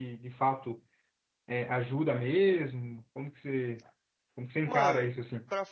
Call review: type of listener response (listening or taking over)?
taking over